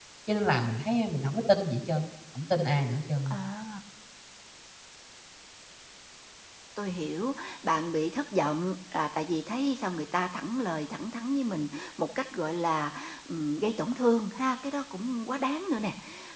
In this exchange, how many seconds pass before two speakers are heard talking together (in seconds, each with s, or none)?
none